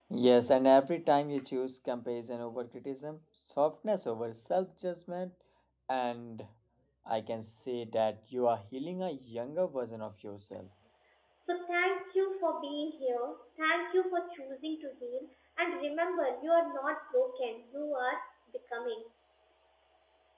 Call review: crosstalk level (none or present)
none